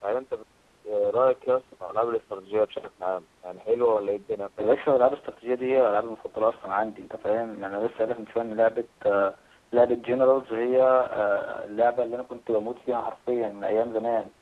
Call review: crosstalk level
none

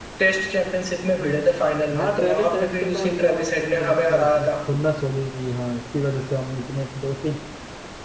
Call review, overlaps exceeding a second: present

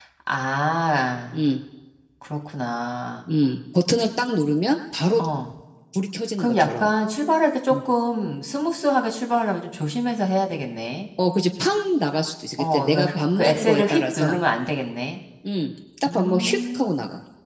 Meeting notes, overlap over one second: present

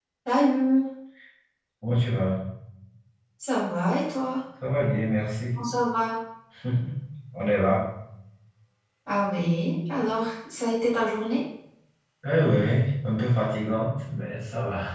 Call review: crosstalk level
none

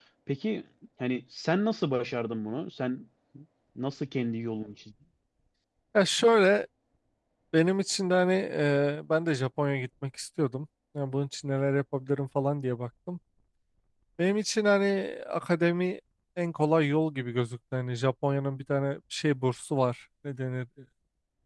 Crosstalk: none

